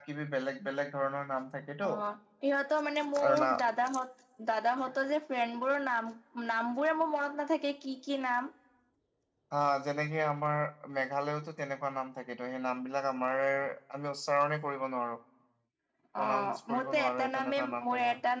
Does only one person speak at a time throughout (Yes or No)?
No